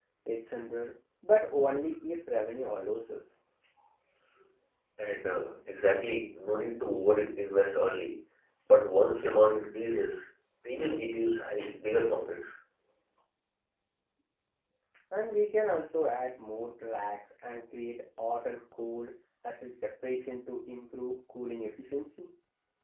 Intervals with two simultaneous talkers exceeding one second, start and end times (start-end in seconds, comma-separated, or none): none